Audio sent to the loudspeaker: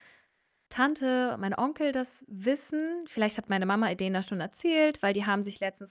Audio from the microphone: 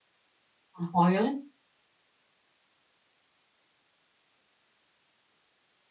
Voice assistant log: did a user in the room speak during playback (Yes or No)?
Yes